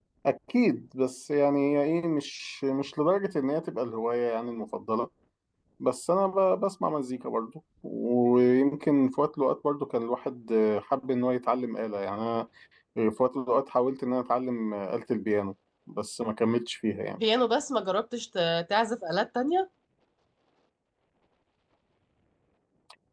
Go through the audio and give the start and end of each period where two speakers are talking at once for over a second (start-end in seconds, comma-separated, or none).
none